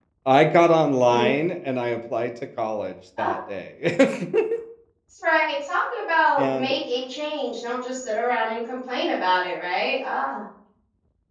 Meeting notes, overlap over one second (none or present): none